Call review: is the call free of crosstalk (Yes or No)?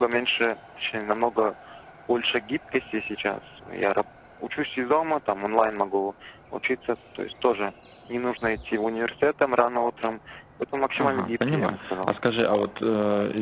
No